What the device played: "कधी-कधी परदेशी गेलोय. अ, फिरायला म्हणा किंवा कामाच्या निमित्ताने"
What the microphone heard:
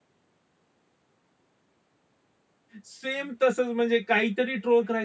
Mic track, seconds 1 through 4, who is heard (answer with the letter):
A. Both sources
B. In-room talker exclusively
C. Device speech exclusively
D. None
B